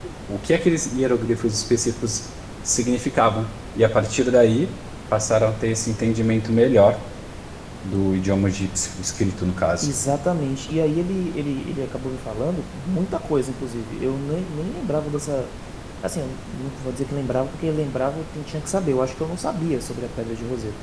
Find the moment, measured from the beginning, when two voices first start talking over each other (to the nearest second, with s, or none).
none